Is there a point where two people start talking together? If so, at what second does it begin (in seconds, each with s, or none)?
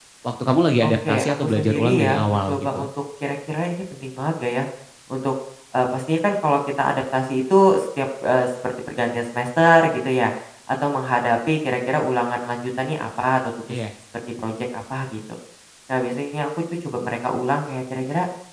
0.8 s